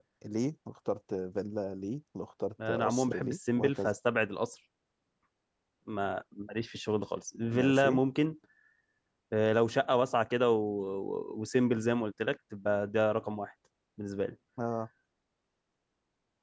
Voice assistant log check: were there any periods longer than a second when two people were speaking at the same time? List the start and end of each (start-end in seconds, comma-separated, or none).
2.7-3.9